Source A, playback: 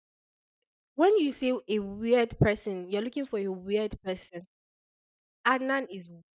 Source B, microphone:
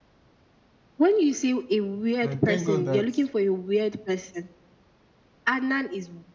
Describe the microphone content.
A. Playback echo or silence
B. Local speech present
B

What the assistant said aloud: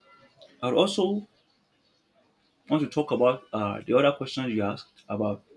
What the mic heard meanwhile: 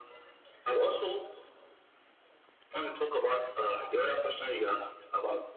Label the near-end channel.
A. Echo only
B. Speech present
A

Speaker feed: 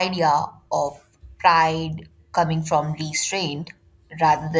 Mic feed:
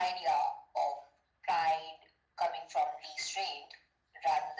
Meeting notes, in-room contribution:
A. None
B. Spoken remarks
A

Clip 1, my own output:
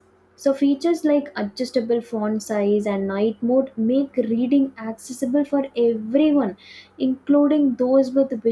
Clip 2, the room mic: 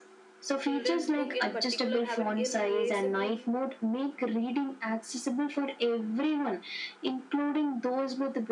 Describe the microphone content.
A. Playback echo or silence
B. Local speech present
B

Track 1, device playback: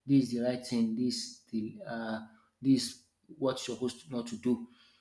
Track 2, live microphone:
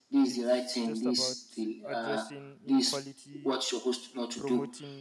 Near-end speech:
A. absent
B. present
B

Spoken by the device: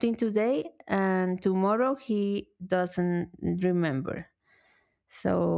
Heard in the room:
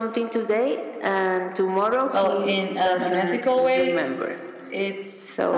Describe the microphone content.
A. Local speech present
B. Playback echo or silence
A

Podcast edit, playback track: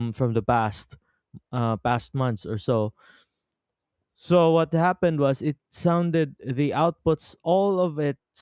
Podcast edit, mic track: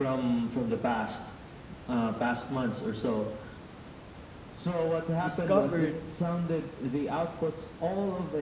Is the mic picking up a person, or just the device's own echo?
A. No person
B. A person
B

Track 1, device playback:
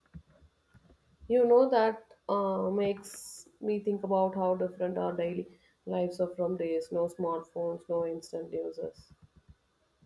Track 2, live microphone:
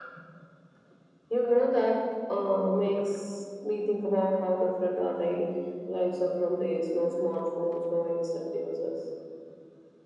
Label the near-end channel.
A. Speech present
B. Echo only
B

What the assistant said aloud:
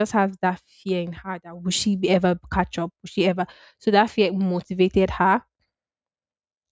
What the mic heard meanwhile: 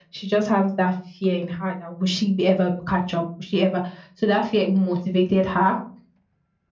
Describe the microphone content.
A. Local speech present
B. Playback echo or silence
B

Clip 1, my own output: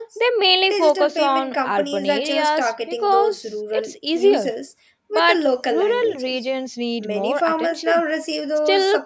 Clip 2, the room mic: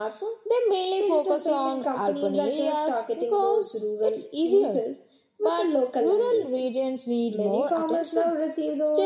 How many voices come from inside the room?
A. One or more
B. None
B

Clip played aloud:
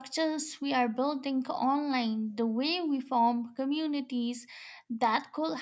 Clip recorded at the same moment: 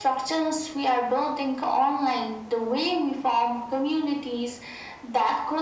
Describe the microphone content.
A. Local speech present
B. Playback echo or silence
B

